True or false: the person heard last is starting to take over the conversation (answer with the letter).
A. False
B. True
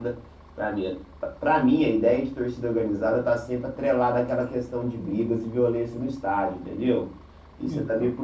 A